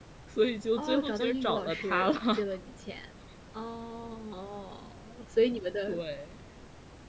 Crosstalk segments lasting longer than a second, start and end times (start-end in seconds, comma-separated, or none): 0.8-2.4